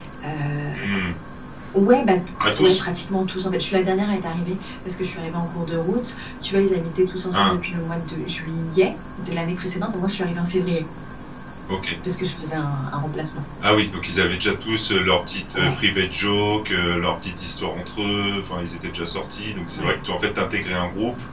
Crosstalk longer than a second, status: none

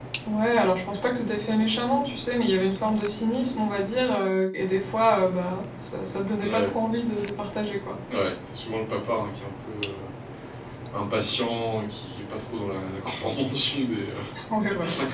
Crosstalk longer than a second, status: none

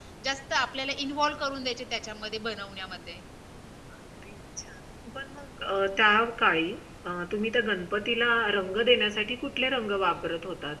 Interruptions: none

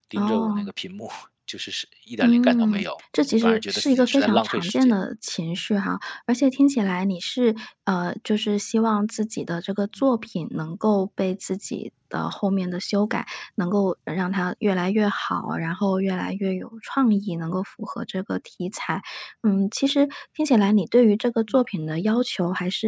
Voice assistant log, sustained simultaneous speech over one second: present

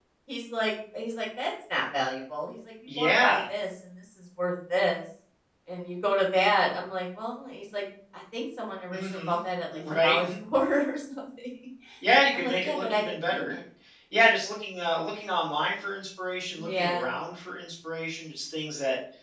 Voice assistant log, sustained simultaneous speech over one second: present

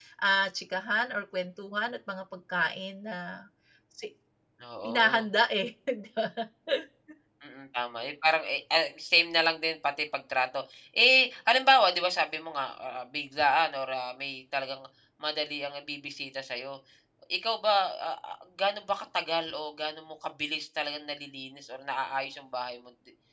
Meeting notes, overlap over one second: none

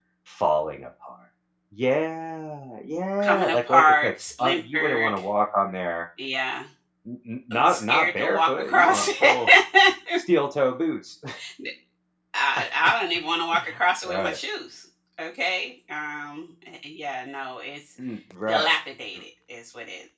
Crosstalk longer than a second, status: present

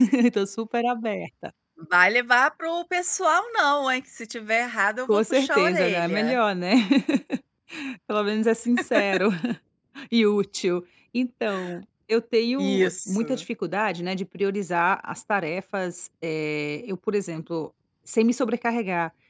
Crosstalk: present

